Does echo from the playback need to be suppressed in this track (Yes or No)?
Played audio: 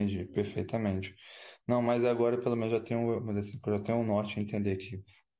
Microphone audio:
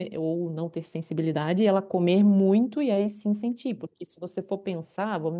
No